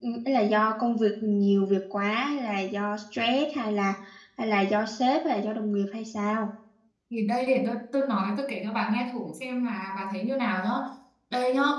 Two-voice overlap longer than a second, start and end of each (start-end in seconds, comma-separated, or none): none